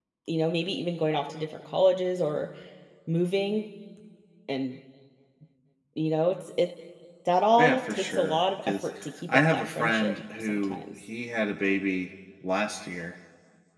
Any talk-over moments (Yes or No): Yes